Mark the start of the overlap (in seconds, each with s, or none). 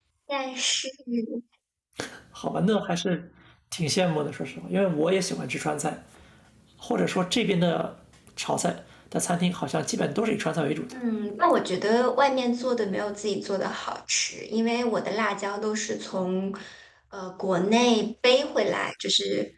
none